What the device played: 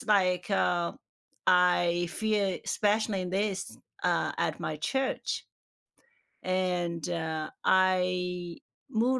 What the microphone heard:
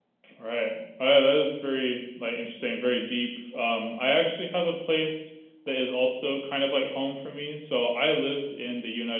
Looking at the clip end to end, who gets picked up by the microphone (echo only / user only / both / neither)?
user only